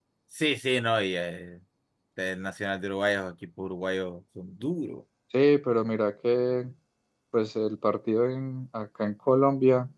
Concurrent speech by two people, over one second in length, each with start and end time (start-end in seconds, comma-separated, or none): none